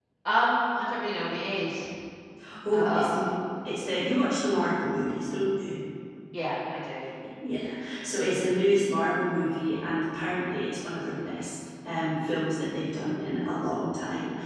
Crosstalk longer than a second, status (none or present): none